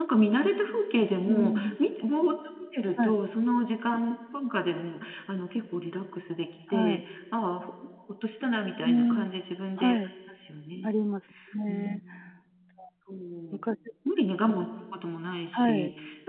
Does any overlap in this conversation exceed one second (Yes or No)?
No